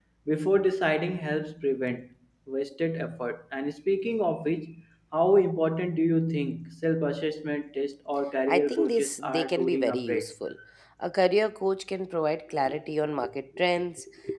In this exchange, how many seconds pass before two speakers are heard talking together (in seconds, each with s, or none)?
8.5 s